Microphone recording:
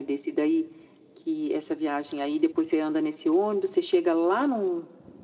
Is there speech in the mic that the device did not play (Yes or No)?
No